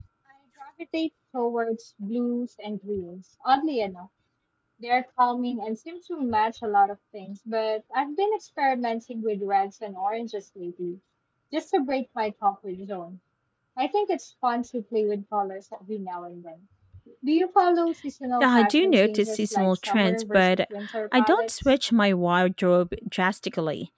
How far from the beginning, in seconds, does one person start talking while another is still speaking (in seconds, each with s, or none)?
18.4 s